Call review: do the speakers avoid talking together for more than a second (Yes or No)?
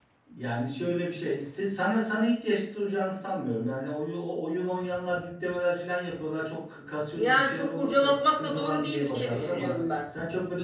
No